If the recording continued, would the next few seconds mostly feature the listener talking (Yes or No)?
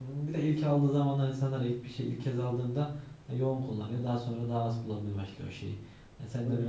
No